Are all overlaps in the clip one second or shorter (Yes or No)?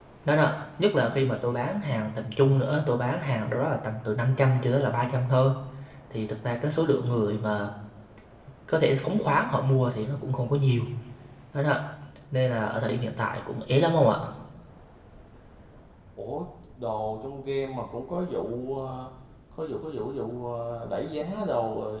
Yes